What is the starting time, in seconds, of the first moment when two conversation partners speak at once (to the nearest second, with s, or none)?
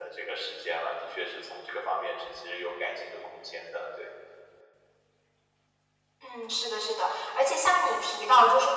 none